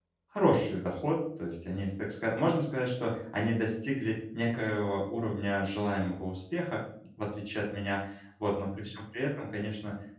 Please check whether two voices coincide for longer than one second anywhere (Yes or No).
No